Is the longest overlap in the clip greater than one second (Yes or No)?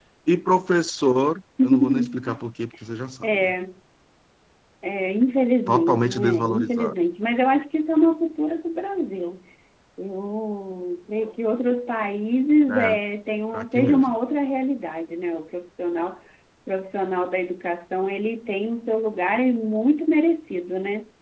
Yes